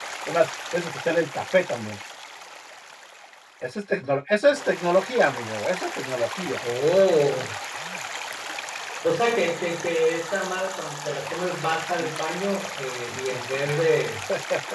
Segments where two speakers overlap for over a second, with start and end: none

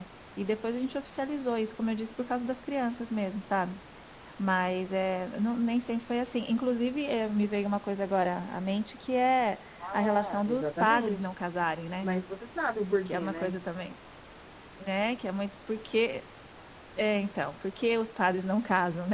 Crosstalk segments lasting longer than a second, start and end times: 9.8-11.3

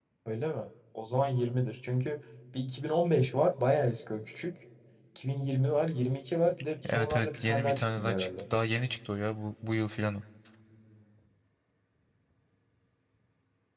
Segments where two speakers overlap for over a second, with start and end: 6.9-8.3

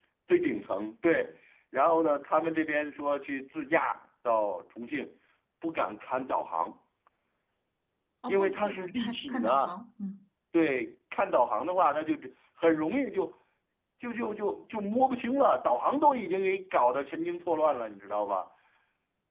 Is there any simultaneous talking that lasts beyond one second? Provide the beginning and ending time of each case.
8.3-9.7

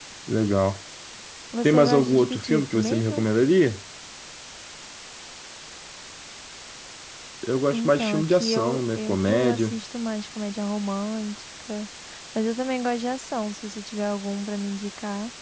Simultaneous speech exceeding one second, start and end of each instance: 1.6-3.3, 7.7-9.7

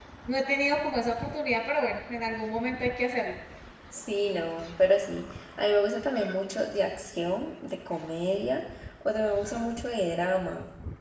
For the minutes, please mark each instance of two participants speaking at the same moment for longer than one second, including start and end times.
none

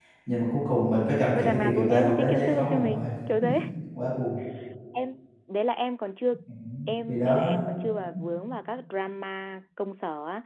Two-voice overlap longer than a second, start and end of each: 1.4-3.0

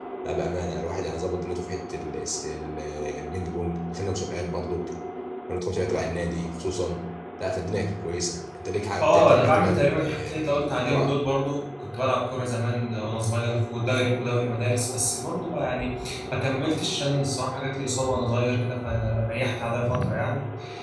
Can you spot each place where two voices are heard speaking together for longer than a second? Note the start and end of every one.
9.0-11.1

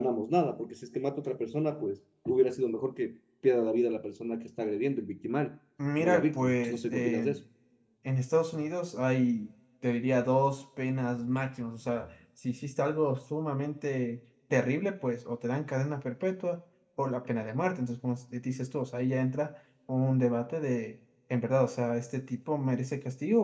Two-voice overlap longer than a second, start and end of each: 6.0-7.3

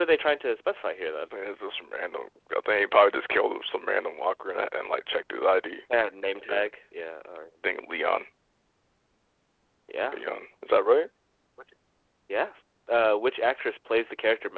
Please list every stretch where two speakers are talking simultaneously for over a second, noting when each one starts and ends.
none

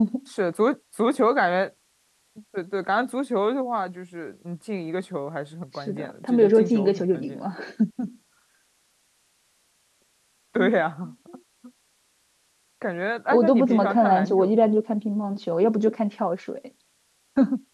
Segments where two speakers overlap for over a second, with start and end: 5.9-7.4, 13.3-14.7

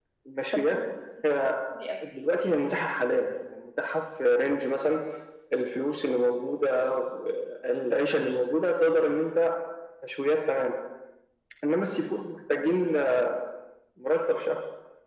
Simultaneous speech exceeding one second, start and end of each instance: none

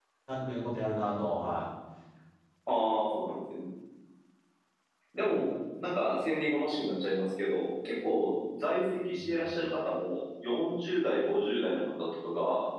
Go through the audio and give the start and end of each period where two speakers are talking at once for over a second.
none

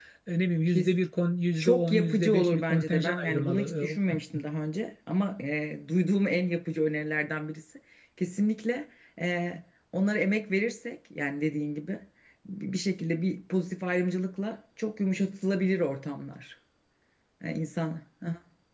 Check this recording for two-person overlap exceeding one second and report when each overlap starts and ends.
1.6-4.0

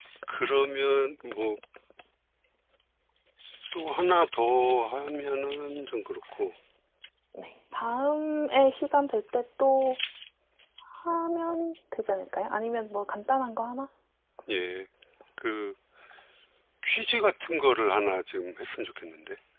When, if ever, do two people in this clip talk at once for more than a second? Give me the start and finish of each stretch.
none

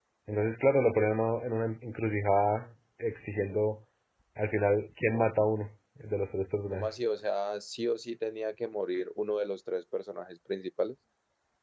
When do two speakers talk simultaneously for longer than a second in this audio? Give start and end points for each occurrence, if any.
none

